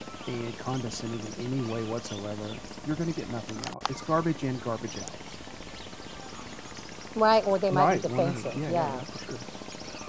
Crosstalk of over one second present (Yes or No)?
Yes